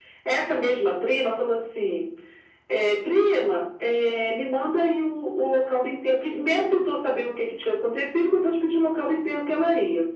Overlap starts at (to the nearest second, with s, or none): none